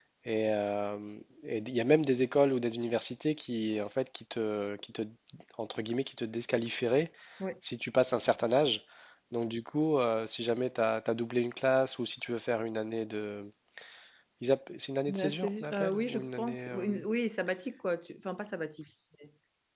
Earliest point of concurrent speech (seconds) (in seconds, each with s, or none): 15.1 s